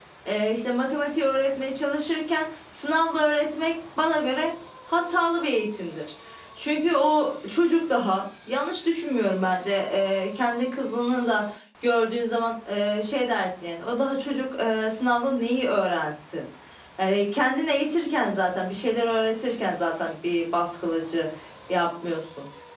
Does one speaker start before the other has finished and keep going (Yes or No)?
No